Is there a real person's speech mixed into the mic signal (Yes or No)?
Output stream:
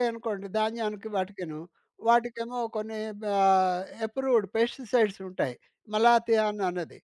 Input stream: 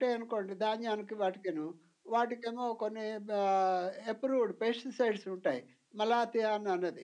No